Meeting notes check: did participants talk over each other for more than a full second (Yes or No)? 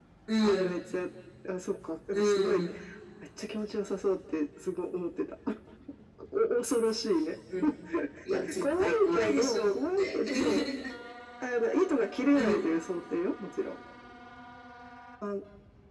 Yes